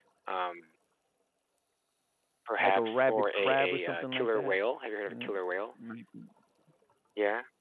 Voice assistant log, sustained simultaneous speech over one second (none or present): present